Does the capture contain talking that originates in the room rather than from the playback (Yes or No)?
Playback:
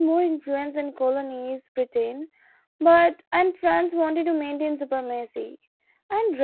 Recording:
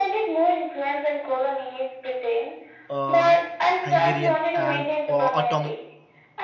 Yes